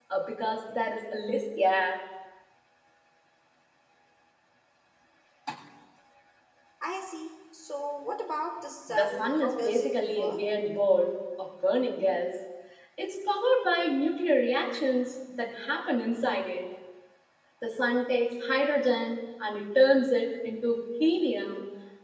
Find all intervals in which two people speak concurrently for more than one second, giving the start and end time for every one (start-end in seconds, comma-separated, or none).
8.9-10.4